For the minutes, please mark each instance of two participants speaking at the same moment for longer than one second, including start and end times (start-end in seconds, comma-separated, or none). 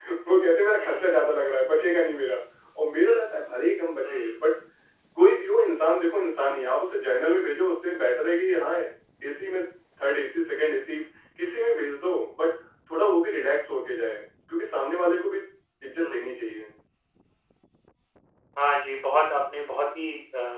none